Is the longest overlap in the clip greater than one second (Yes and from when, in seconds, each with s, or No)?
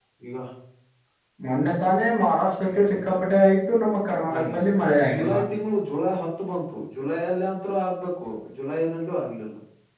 No